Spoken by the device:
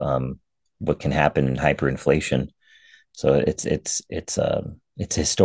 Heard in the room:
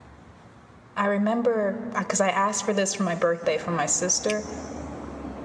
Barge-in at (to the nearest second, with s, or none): 1 s